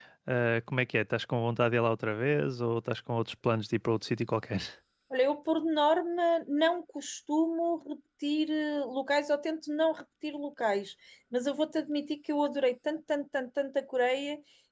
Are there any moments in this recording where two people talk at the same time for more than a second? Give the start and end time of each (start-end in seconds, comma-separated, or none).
none